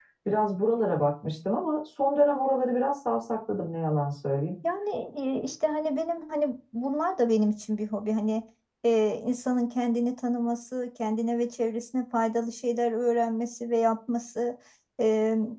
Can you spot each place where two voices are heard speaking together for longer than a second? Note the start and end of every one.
none

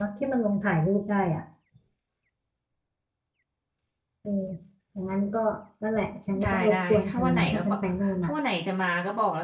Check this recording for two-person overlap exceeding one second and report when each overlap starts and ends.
6.4-7.8

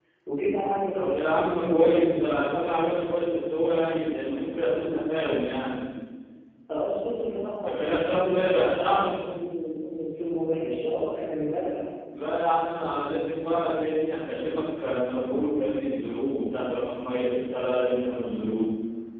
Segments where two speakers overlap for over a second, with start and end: 0.9-2.5, 7.6-9.1

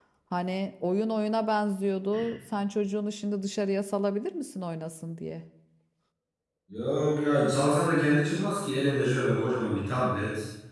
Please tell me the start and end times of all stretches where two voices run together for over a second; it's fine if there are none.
none

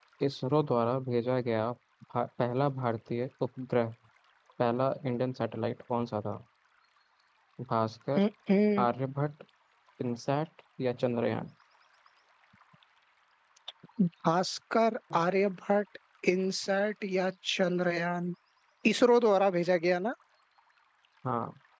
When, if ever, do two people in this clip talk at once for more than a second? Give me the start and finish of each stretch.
none

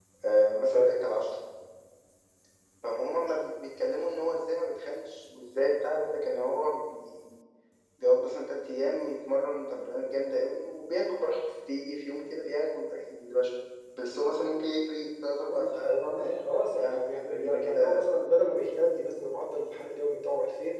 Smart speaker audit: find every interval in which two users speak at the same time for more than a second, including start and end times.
16.6-18.0

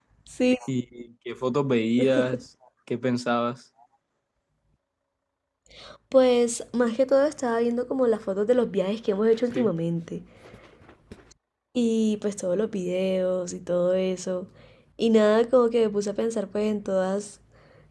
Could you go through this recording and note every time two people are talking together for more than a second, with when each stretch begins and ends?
none

